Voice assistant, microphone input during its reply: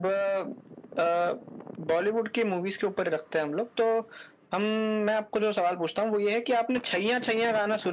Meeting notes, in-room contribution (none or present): none